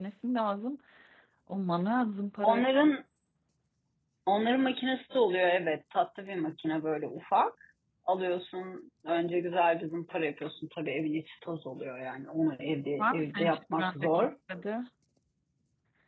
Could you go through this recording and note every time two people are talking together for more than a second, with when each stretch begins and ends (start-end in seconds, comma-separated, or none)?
13.0-14.3